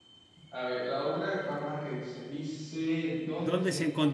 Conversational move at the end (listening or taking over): taking over